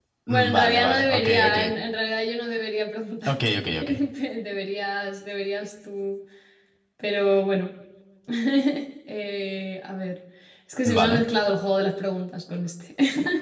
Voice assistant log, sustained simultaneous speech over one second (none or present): present